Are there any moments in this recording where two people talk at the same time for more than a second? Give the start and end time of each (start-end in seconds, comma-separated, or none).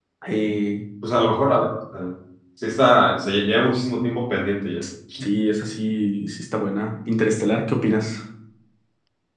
none